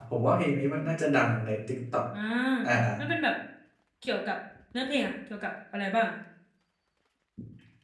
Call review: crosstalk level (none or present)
none